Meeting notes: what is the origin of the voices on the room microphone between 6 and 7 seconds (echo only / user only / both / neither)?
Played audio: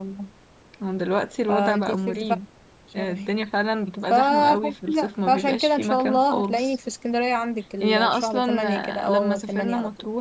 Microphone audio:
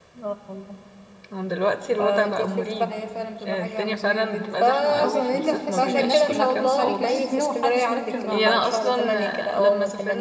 both